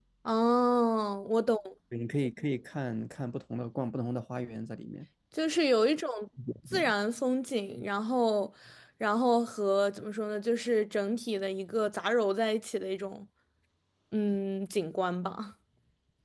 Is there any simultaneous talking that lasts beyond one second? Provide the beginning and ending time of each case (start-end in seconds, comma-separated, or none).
none